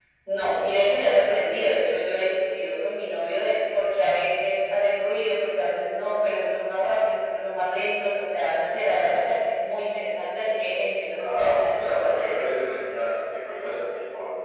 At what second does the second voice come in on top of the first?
11.0 s

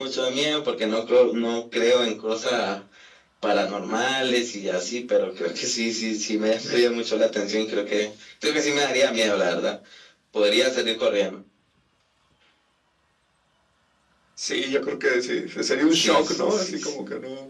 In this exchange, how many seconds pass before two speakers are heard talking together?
15.9 s

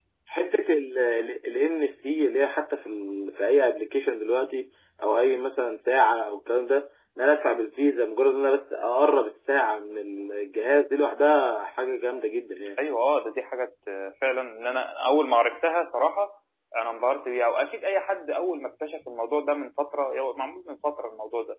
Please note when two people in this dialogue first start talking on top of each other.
none

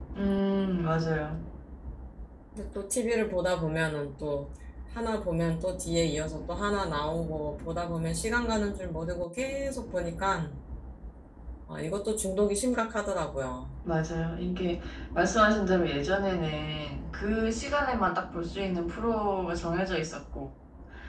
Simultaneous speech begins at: none

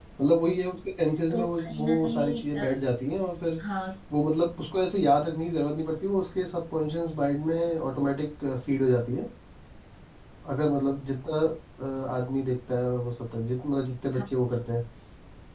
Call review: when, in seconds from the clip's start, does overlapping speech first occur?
1.3 s

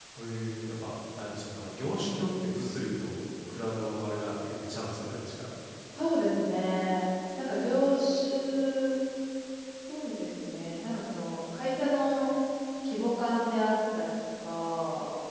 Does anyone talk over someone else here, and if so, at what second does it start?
none

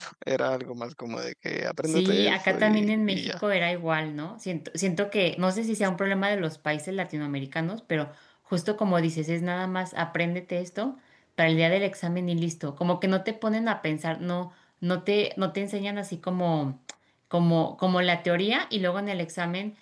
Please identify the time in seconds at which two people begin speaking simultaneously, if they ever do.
1.8 s

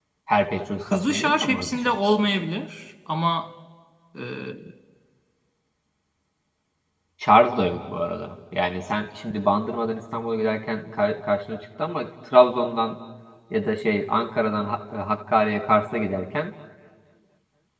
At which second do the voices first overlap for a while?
0.9 s

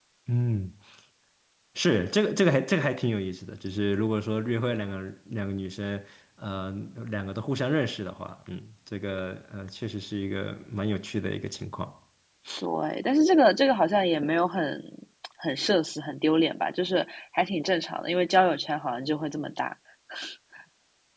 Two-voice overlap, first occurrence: none

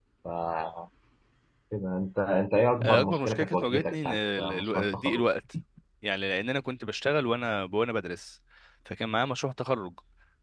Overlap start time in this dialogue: 2.8 s

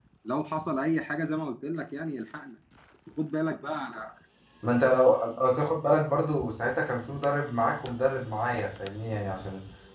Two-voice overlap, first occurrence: none

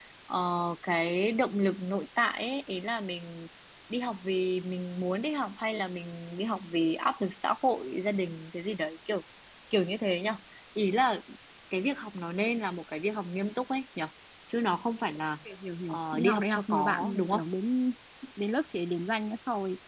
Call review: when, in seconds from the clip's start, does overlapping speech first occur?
15.9 s

